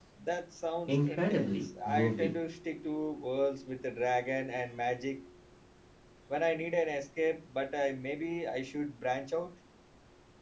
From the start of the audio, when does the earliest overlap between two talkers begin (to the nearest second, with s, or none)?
1 s